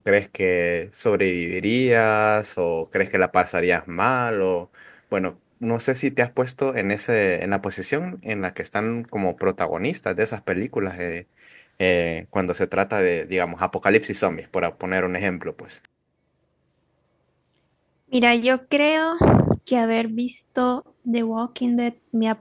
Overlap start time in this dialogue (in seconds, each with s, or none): none